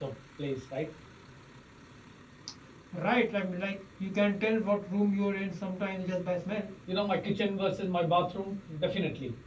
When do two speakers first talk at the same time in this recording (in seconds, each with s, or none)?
none